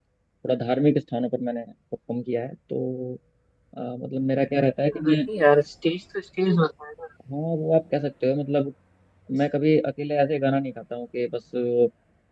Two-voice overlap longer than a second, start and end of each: none

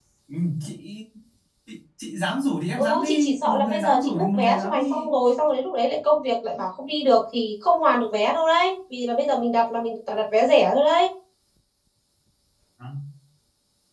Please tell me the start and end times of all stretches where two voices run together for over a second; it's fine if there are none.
2.8-5.1

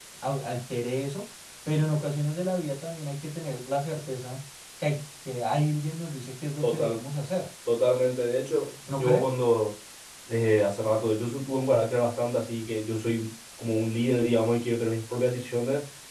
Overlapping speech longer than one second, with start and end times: none

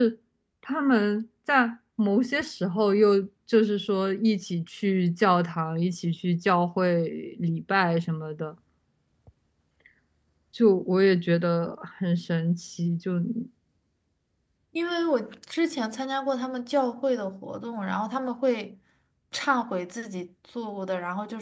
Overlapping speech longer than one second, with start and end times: none

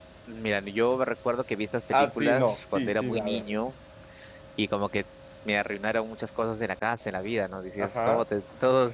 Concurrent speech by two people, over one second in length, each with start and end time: 1.9-3.5

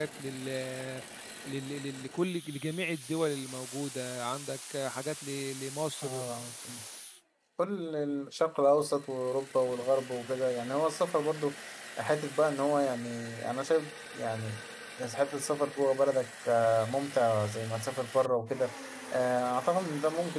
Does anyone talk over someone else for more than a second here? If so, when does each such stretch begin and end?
none

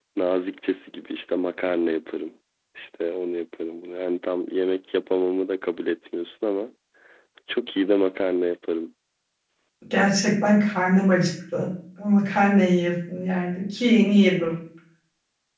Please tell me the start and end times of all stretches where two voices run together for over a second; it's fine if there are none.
none

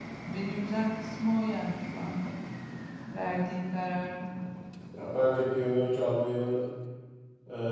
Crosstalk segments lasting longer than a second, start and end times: none

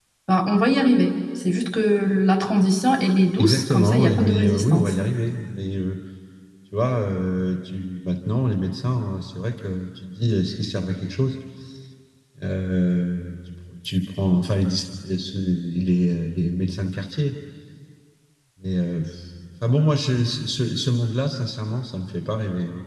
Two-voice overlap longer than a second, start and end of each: 3.4-5.0

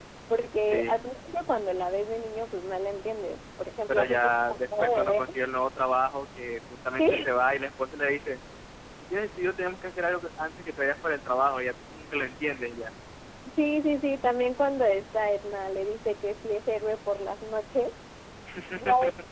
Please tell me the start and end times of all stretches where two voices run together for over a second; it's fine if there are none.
3.9-5.2

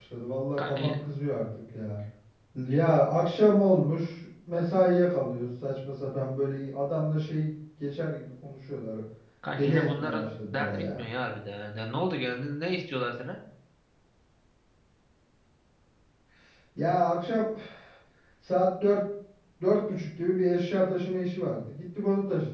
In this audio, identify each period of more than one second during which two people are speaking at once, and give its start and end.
9.6-11.0

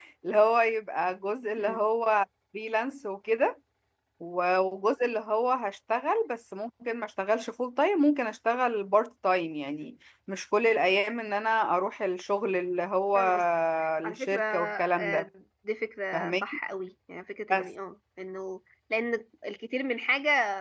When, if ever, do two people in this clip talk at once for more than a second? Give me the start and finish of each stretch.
14.0-15.3

